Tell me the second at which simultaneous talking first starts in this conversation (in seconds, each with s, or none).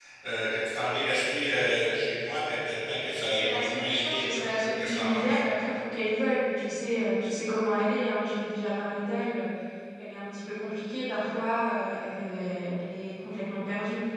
3.1 s